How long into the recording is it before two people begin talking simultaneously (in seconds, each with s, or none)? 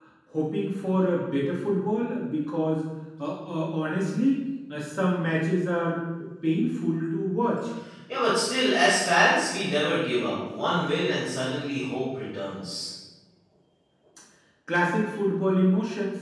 none